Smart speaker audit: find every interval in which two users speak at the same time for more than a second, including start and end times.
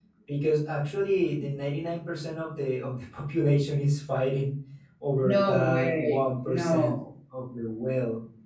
5.2-7.0

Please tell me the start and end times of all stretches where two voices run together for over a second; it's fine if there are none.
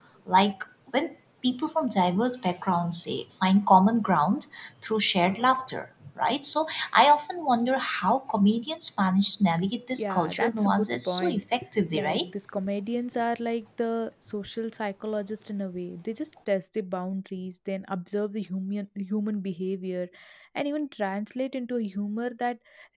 10.0-11.4

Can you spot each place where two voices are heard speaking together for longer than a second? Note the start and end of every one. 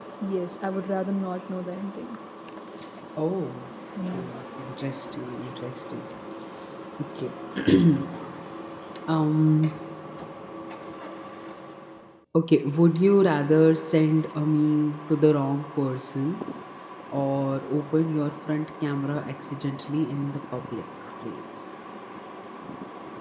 none

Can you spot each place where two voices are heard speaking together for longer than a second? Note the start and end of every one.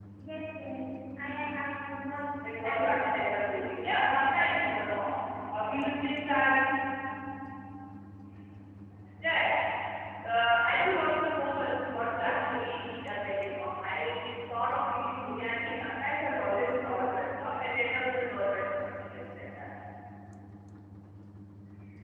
2.6-3.9

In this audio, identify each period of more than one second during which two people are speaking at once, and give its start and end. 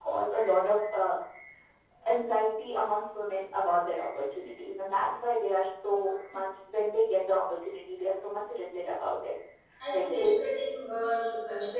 none

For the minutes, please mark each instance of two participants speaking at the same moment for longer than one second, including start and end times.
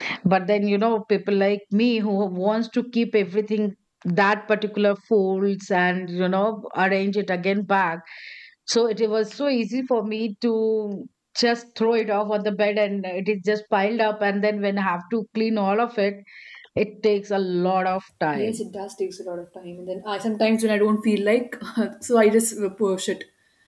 none

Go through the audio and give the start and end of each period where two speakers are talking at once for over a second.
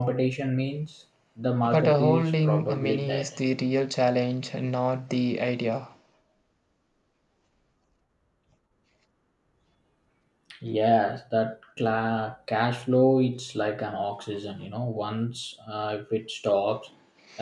1.7-3.3

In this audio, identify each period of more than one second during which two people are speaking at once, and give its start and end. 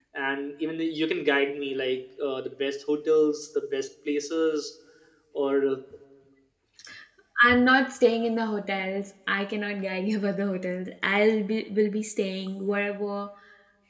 none

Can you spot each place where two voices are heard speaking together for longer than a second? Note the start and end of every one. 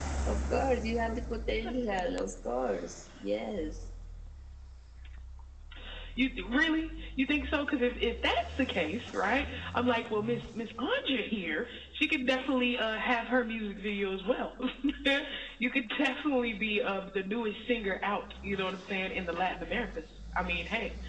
none

